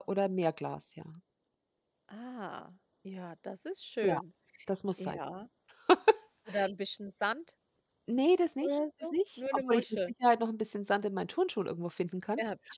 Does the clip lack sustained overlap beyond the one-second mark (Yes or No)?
No